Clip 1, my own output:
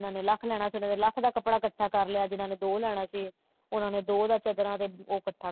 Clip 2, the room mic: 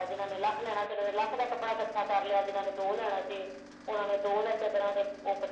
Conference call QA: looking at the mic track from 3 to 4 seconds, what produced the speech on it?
echo only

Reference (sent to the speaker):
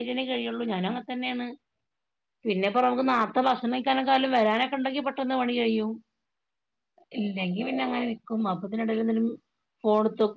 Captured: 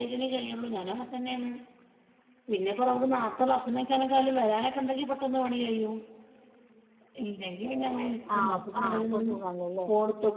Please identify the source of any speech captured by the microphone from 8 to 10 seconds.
both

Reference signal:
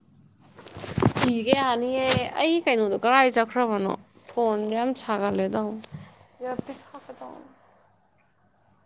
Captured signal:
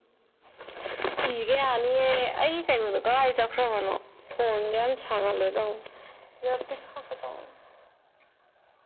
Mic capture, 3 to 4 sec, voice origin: echo only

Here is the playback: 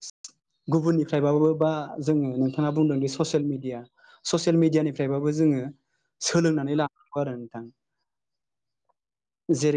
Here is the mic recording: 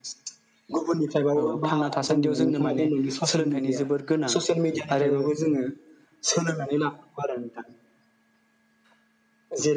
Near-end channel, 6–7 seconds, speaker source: echo only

